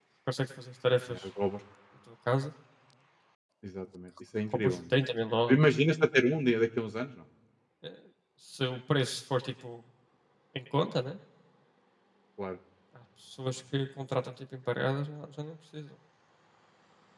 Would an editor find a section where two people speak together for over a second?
No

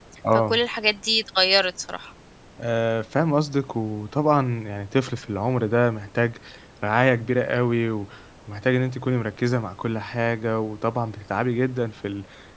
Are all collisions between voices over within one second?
Yes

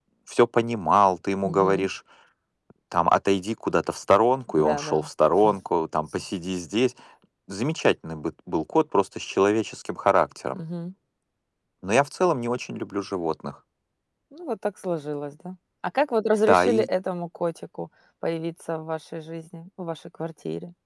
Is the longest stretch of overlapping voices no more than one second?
Yes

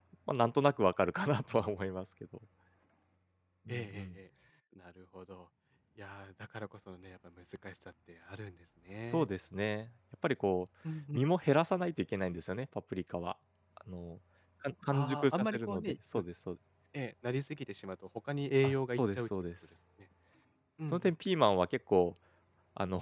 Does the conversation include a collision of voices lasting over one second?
Yes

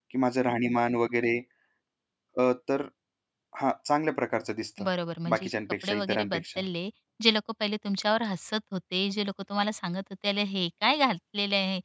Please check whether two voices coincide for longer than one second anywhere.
Yes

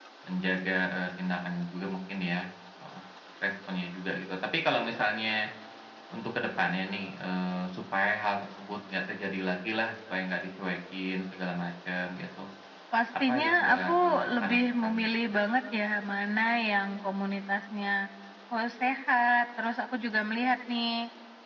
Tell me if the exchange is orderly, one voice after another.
No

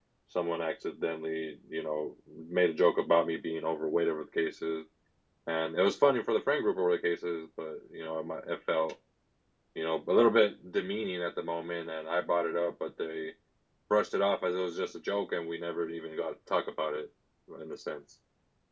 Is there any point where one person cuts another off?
No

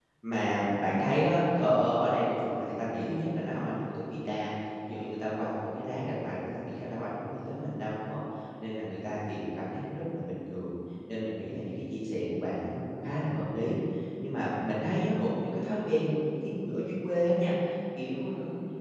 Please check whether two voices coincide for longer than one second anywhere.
No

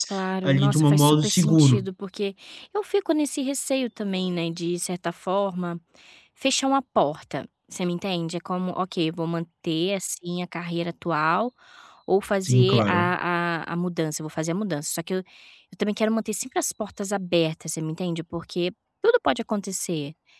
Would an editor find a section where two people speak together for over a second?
Yes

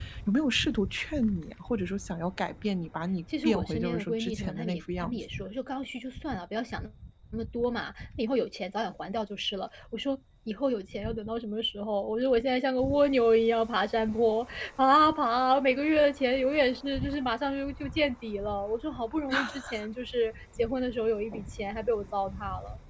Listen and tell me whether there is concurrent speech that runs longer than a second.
Yes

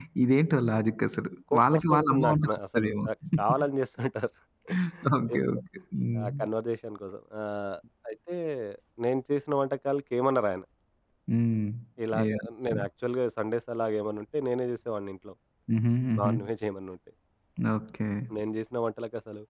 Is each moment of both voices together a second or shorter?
No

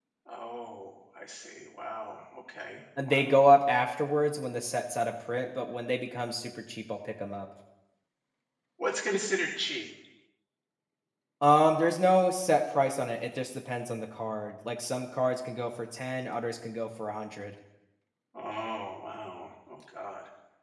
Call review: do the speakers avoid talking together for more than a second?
Yes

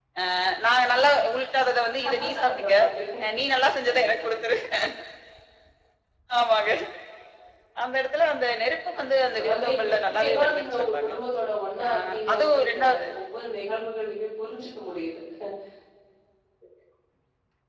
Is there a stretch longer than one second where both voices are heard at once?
Yes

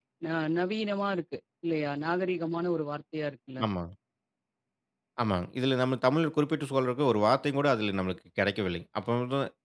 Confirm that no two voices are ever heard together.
Yes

